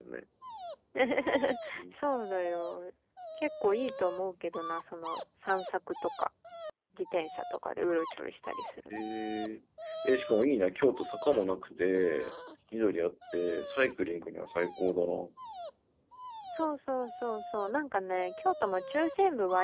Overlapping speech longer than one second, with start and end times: none

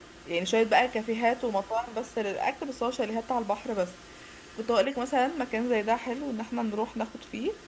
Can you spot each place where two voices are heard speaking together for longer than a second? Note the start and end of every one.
none

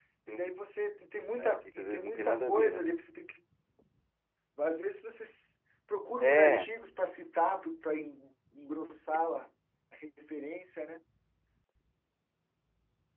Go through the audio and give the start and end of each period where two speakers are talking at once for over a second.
1.4-2.8

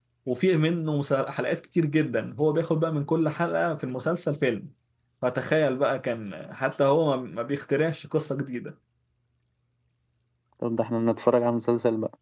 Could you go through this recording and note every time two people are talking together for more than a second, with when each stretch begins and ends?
none

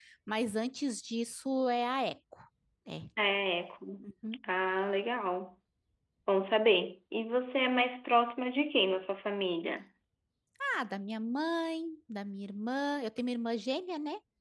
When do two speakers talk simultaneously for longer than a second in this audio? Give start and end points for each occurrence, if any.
none

